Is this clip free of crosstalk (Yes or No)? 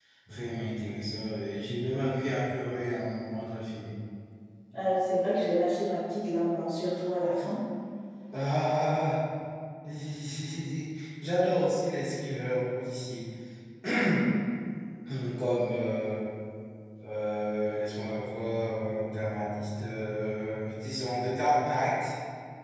Yes